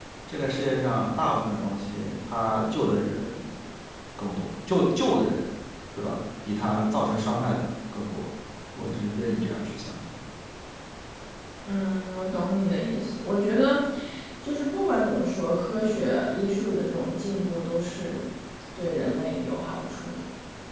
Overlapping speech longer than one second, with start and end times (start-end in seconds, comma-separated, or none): none